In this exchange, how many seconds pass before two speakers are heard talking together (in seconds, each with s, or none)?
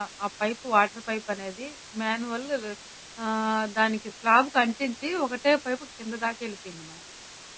none